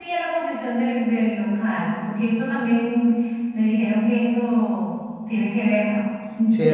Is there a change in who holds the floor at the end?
Yes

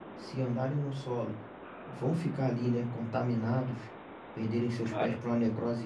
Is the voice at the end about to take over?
No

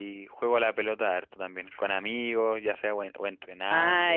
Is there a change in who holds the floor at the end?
Yes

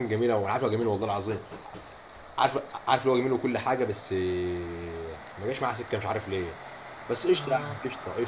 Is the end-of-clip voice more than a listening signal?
No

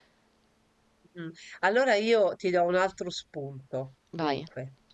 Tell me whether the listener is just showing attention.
Yes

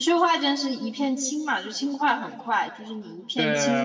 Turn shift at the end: Yes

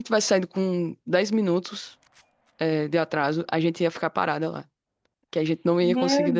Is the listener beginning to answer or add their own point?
Yes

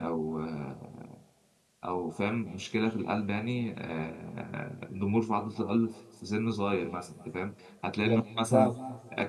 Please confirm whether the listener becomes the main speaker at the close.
No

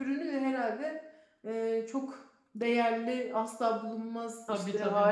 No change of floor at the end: Yes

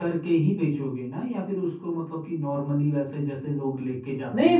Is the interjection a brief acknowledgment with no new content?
No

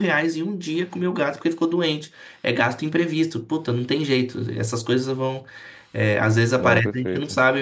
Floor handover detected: No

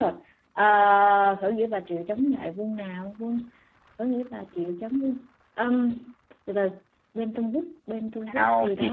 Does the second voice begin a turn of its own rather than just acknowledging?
Yes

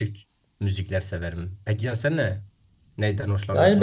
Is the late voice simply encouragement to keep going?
No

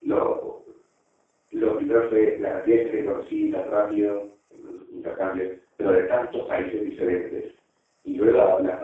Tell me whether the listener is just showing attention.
Yes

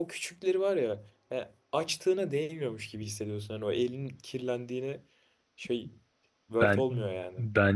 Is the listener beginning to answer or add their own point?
Yes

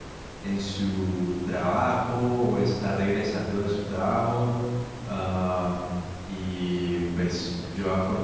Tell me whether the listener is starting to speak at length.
No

